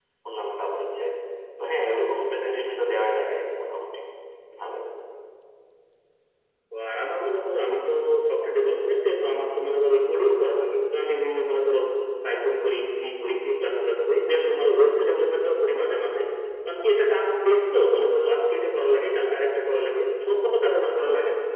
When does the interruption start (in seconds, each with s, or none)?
none